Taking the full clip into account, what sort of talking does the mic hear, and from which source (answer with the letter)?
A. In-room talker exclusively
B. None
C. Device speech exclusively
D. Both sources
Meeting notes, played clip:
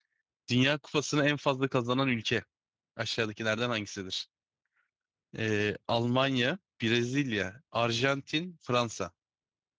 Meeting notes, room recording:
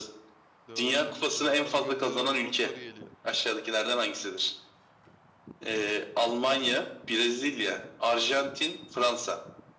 D